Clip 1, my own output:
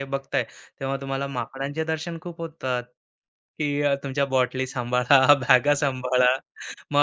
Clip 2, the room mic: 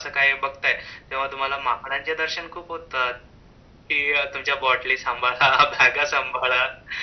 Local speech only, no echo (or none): none